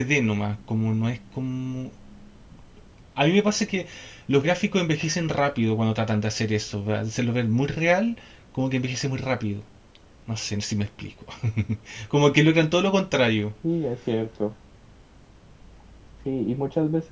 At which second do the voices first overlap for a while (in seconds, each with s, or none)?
none